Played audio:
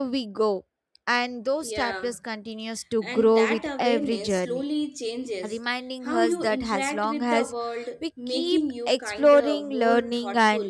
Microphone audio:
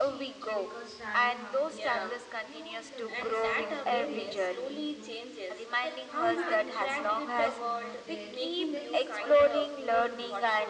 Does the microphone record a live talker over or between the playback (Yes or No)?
Yes